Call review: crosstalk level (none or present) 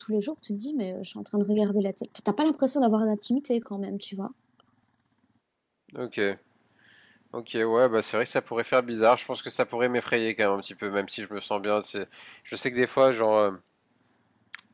none